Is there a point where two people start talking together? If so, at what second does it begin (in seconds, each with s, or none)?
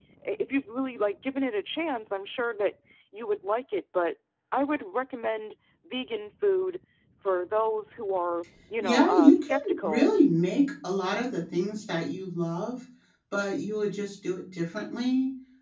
8.8 s